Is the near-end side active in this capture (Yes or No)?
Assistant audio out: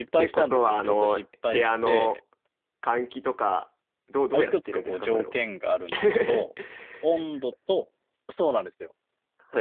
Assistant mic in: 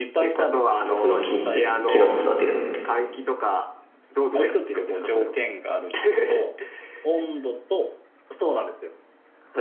Yes